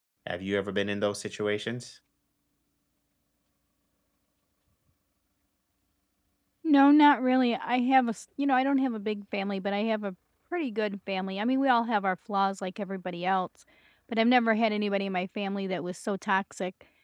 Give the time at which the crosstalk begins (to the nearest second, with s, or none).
none